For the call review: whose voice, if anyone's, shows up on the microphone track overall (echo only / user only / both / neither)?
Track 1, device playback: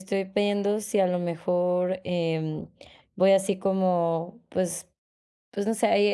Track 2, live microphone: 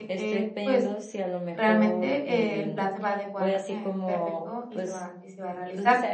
both